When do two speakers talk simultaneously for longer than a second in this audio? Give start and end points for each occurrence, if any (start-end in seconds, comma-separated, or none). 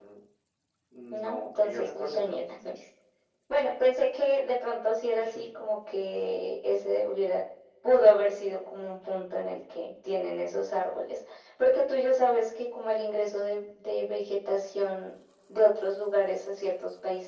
1.1-2.4